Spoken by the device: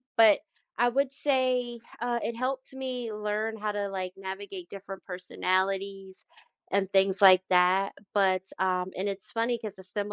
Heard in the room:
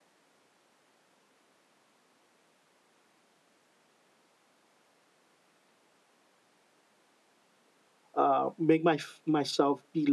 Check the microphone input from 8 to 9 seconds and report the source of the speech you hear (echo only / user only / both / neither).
user only